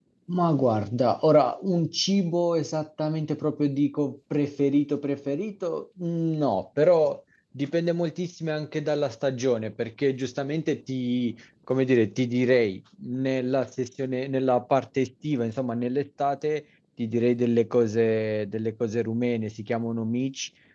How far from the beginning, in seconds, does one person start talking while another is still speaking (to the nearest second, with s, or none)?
none